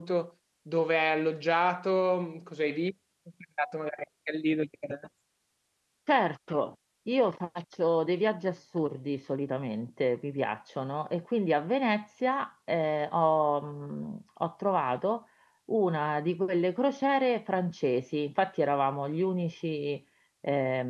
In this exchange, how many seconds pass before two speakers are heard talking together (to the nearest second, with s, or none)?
none